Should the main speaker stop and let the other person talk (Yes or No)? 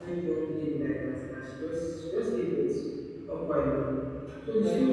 No